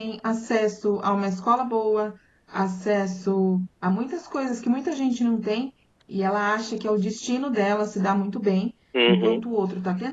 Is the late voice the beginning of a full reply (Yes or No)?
No